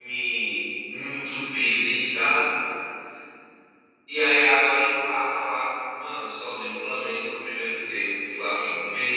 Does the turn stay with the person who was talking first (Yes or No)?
Yes